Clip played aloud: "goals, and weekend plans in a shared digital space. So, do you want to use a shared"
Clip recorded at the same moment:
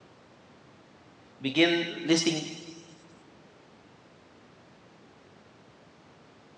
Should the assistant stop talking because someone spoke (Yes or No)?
Yes